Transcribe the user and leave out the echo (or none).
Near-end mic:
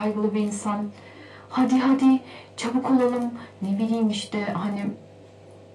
none